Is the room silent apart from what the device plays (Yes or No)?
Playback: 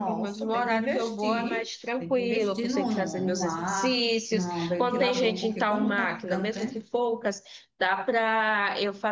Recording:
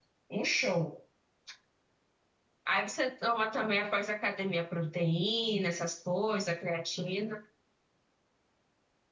No